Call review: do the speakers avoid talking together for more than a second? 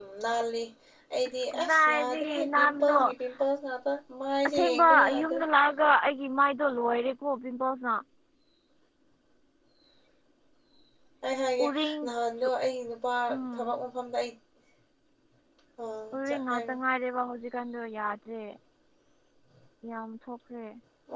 No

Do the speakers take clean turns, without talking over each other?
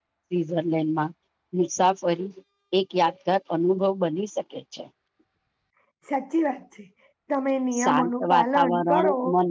No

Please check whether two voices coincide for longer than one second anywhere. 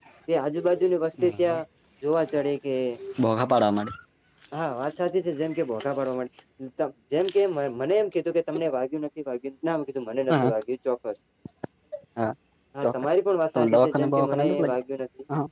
Yes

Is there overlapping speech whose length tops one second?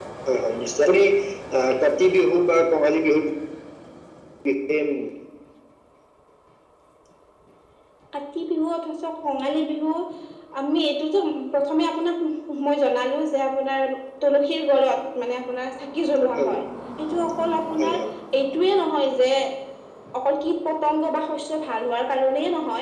No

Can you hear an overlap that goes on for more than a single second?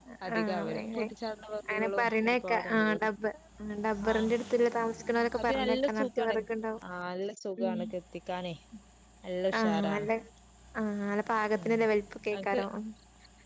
Yes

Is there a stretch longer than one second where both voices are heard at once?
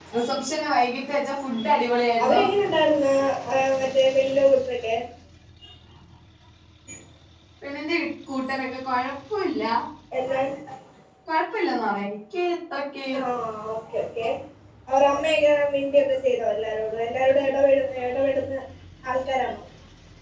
No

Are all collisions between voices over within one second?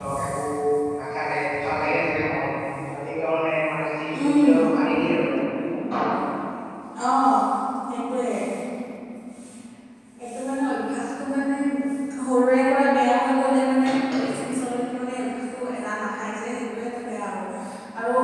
Yes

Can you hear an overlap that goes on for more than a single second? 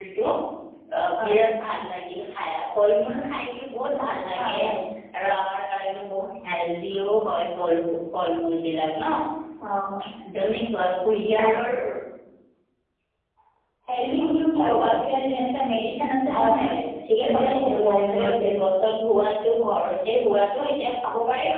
Yes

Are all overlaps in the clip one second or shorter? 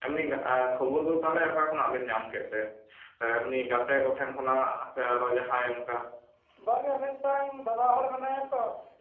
Yes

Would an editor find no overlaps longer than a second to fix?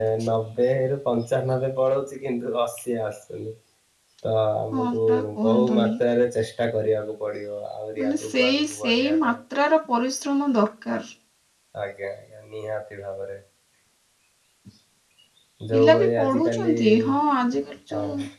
No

